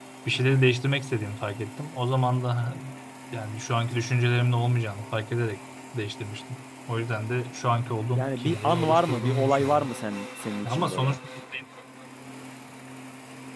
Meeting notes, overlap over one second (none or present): present